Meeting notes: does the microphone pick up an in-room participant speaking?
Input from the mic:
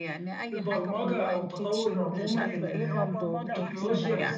Yes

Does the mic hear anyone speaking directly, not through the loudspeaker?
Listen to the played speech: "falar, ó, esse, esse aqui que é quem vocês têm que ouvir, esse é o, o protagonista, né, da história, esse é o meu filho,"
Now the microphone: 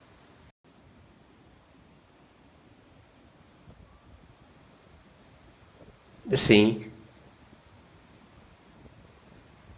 Yes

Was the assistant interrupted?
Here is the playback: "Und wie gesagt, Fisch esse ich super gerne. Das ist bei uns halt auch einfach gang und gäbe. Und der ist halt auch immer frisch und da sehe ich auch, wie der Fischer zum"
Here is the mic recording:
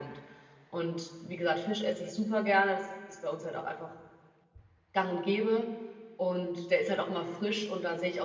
No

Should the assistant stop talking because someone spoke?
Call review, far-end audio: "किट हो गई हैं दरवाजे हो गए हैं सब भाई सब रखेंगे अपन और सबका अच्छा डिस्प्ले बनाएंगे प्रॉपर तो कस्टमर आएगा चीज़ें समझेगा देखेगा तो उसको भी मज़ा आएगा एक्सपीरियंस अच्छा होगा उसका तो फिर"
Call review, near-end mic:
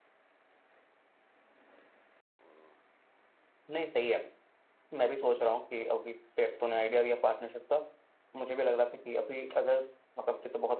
Yes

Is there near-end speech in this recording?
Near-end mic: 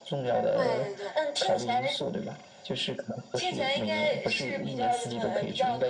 Yes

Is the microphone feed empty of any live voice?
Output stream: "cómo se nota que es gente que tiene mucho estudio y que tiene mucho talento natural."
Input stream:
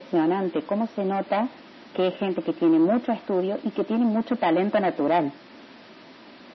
Yes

